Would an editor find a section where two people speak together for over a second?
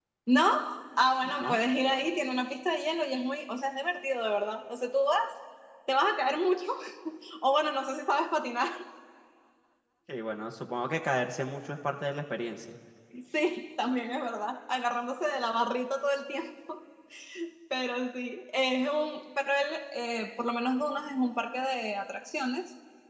No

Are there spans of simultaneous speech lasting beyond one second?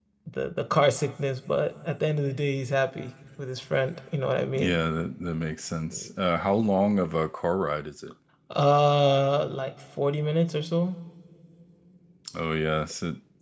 No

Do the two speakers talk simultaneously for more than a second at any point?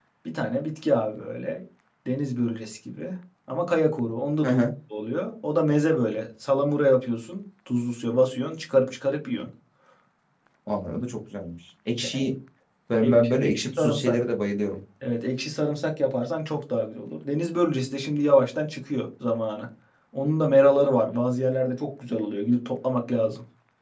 Yes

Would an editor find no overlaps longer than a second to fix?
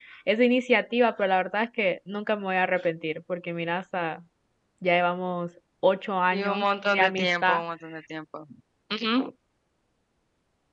No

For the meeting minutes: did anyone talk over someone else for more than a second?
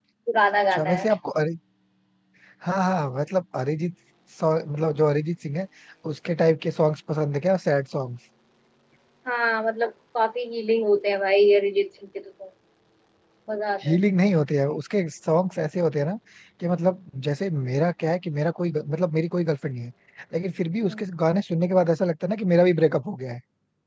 No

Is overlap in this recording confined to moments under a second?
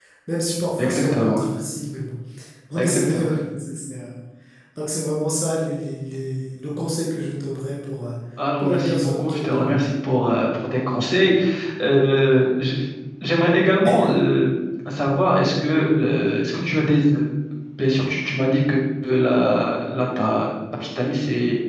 No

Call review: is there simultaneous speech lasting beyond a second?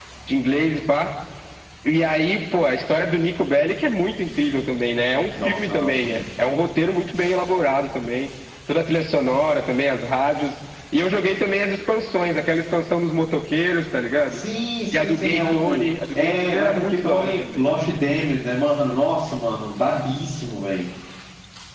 Yes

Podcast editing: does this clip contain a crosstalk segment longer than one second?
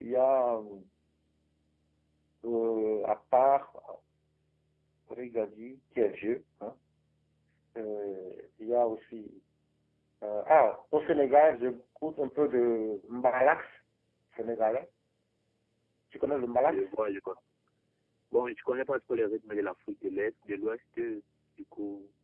No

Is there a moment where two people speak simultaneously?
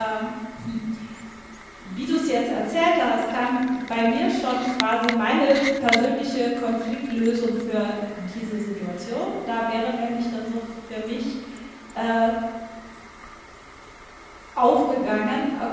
No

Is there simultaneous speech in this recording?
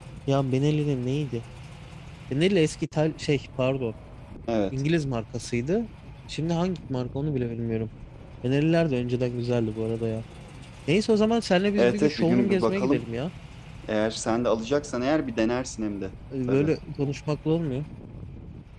Yes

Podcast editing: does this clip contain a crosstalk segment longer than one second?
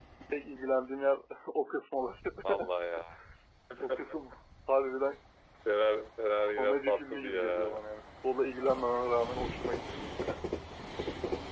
Yes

